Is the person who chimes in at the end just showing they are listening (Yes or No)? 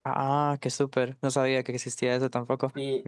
No